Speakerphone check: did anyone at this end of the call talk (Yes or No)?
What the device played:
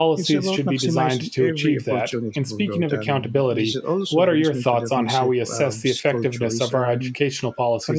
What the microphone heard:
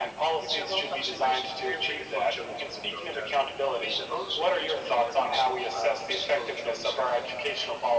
No